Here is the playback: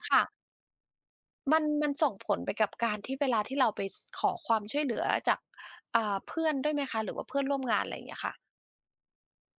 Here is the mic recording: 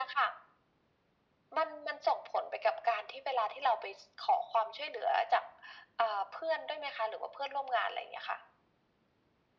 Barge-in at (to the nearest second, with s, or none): none